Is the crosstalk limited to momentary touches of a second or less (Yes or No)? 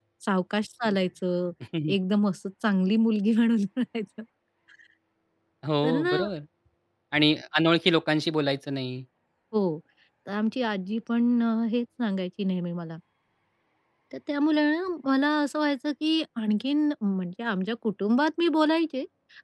Yes